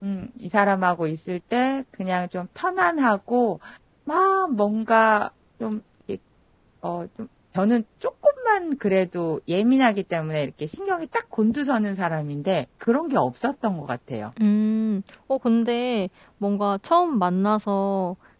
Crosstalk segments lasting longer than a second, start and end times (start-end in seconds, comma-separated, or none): none